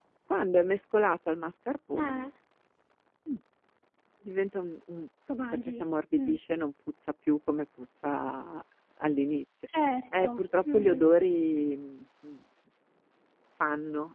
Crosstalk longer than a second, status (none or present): none